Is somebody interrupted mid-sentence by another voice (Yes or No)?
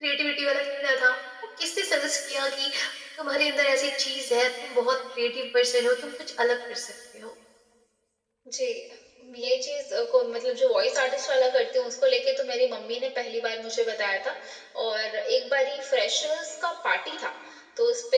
No